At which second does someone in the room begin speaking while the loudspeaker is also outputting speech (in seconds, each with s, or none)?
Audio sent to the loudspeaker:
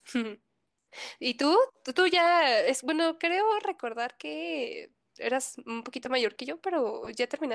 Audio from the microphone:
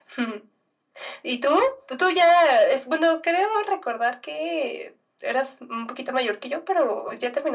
none